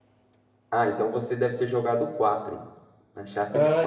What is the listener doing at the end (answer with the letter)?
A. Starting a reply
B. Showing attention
A